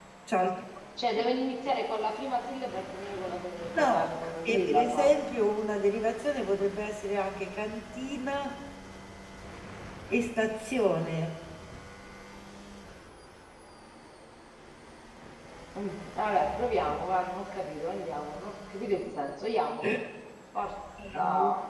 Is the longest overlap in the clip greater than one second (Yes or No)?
Yes